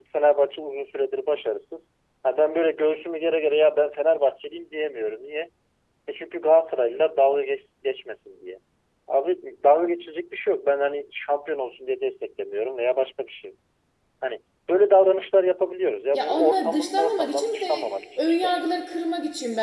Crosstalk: present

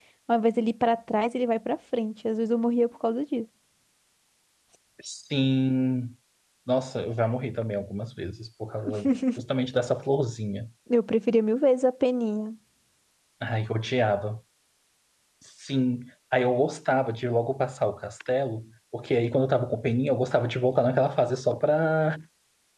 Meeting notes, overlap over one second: none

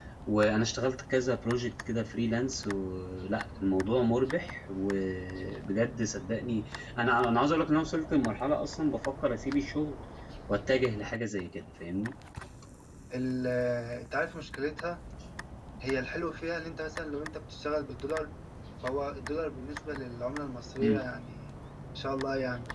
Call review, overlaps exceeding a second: none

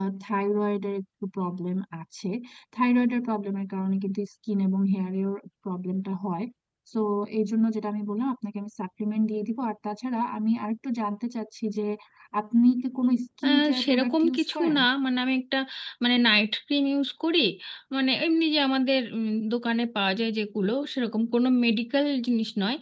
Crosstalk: present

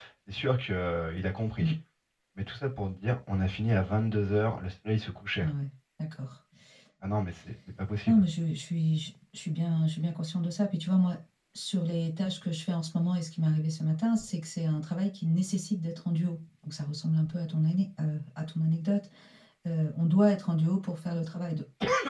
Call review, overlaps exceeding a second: none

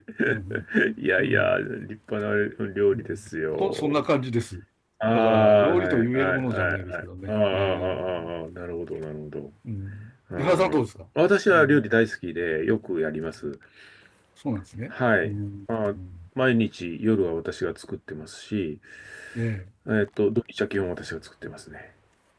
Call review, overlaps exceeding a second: present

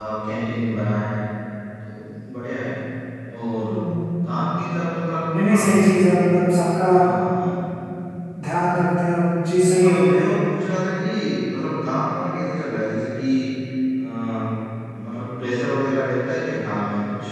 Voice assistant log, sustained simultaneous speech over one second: none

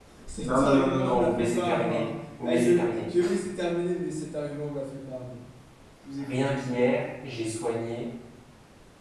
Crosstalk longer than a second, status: present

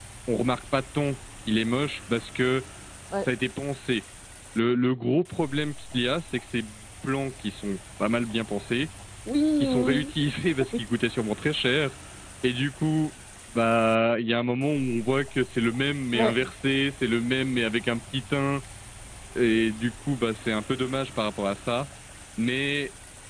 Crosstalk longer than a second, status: none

